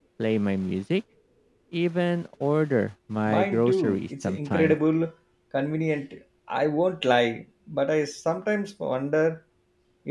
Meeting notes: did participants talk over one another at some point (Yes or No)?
Yes